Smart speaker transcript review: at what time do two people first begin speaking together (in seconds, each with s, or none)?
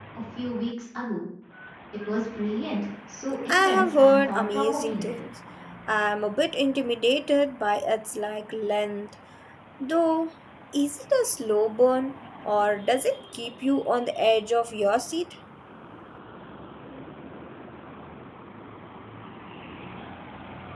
3.5 s